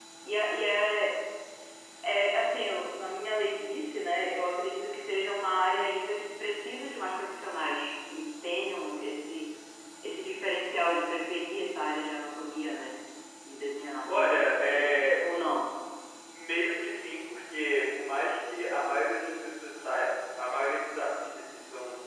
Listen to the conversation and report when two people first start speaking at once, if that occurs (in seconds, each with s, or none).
14.1 s